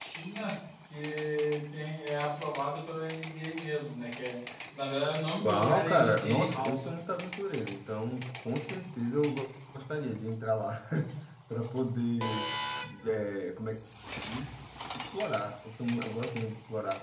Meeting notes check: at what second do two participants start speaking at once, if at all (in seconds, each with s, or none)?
5.4 s